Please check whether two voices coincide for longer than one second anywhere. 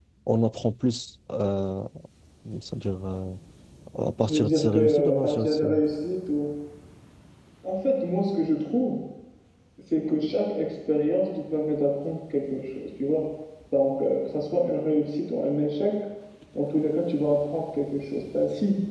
Yes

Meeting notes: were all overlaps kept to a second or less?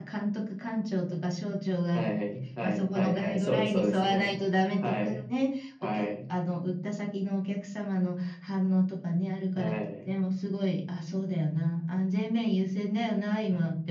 No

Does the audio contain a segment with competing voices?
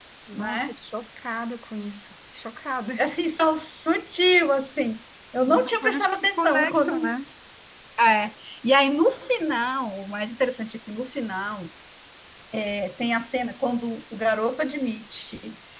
Yes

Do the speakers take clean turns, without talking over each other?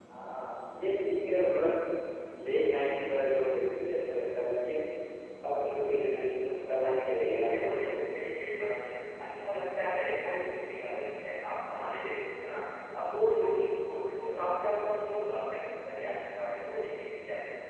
No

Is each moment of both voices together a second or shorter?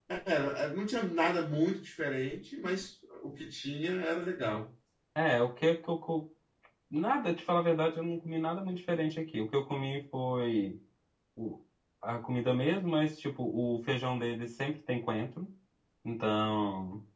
Yes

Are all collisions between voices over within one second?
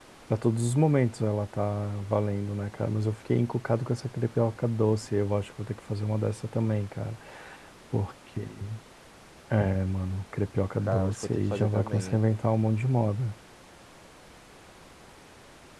No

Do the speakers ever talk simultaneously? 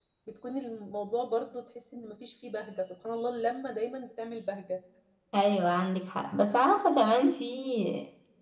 No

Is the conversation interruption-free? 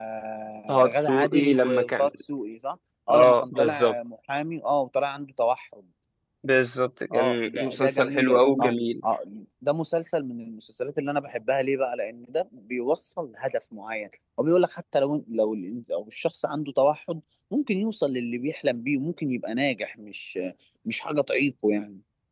No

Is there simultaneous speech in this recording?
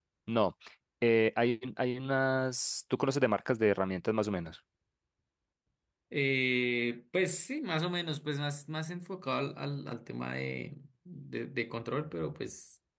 No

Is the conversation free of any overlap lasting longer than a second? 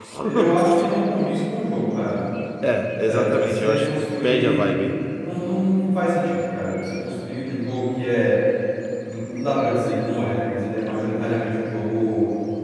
No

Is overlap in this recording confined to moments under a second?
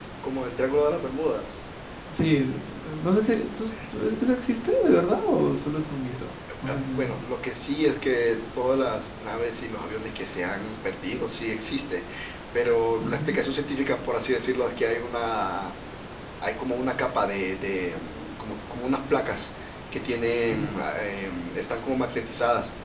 Yes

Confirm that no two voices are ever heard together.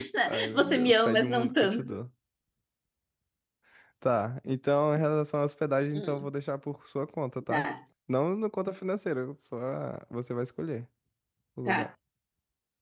No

